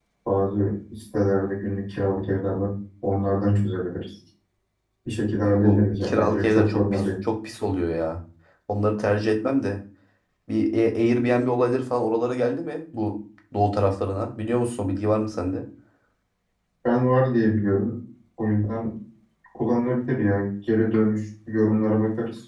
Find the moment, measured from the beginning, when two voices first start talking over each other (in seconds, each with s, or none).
5.4 s